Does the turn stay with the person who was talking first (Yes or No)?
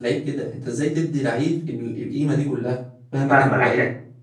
No